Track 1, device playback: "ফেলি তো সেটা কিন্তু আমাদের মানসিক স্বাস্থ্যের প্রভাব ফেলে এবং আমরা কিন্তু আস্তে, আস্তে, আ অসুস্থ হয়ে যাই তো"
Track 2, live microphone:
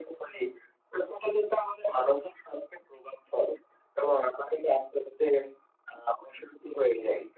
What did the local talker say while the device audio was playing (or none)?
none